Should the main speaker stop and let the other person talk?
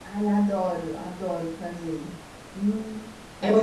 Yes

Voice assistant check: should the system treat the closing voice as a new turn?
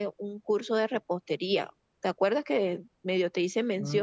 Yes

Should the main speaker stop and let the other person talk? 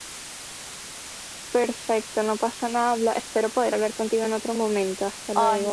Yes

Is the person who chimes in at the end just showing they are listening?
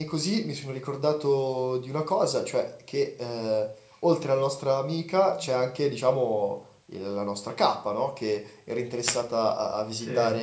Yes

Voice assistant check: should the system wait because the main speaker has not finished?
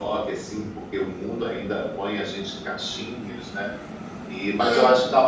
Yes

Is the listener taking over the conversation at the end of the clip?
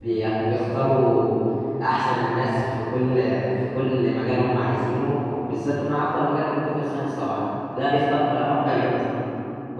No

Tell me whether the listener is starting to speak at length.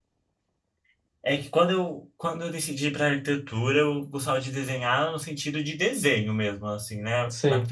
No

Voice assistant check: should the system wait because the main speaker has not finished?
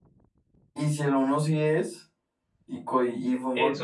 No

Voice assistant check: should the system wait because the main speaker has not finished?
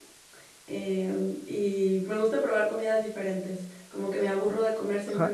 No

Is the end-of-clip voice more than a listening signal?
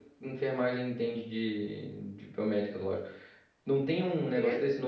No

